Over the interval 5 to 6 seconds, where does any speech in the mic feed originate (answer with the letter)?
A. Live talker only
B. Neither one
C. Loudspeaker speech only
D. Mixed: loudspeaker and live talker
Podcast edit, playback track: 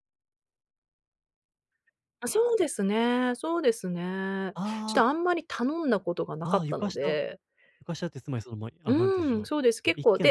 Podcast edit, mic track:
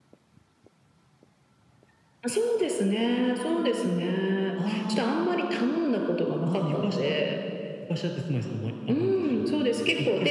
C